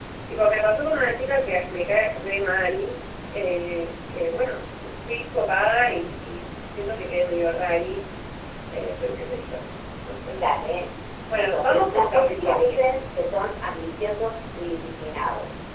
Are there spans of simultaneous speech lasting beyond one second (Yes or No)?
Yes